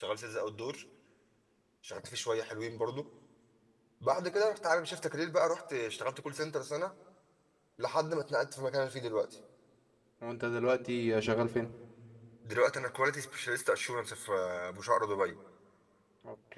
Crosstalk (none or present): none